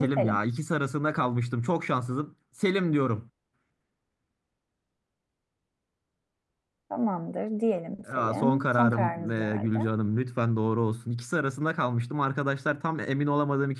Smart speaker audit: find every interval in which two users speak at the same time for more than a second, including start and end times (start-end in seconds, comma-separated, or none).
8.1-9.9